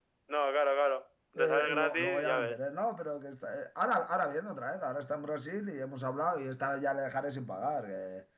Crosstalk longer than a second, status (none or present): present